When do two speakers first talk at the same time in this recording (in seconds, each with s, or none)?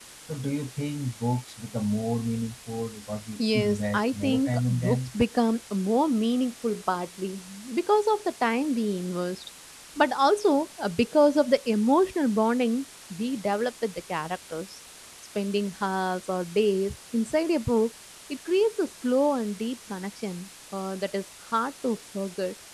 3.4 s